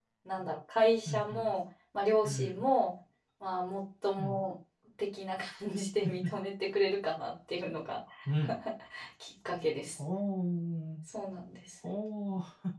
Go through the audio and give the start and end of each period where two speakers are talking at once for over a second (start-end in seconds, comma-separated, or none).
none